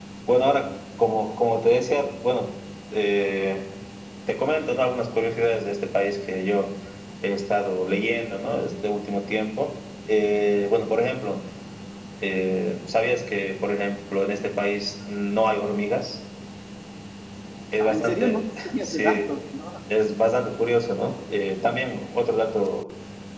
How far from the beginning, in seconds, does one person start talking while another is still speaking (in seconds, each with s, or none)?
17.8 s